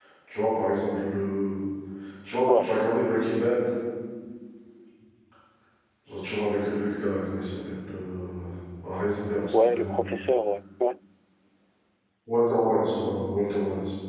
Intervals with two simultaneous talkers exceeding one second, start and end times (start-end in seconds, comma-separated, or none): none